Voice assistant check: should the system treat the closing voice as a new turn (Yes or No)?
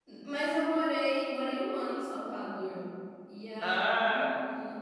No